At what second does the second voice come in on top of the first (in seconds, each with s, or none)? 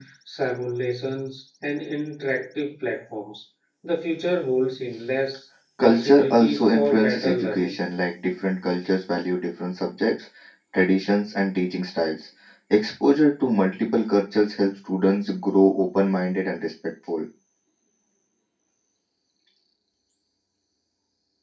5.8 s